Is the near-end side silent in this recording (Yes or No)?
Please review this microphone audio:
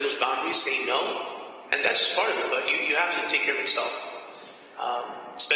Yes